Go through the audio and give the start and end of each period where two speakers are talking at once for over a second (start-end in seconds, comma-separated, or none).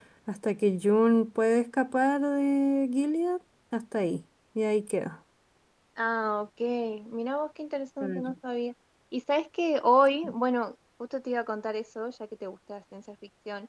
none